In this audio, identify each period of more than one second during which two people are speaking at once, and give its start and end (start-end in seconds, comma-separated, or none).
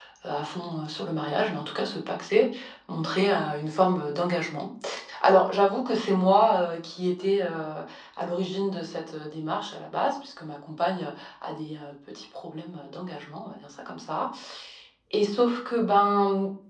none